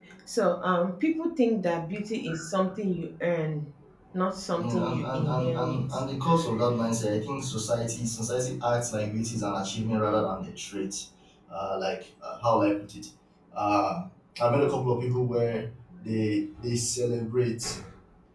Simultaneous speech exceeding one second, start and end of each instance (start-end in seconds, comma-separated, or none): 4.5-5.8